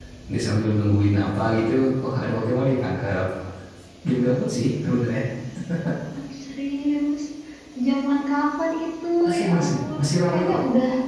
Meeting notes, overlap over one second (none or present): present